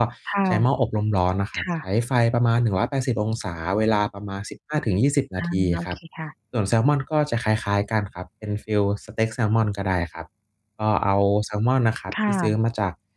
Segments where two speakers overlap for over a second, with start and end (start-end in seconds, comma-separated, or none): none